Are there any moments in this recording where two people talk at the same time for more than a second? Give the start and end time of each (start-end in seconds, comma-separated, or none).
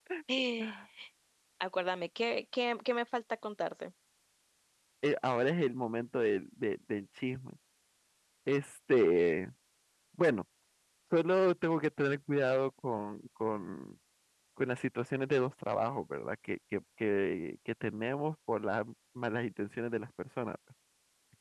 none